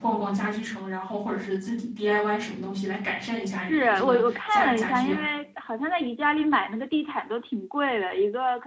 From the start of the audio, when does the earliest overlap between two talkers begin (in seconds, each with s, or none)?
3.5 s